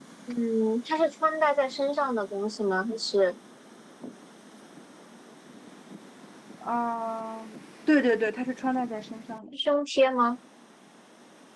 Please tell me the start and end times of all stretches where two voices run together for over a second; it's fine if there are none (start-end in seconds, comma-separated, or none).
none